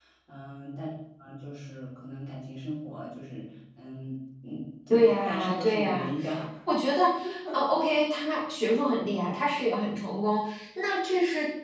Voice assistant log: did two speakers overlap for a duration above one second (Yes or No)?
Yes